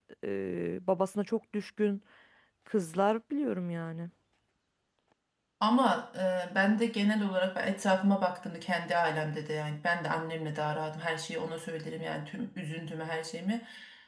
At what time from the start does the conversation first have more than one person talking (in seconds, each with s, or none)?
none